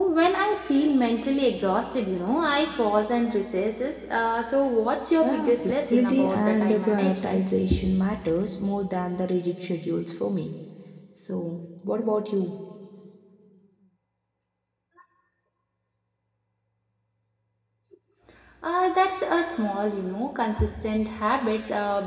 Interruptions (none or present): present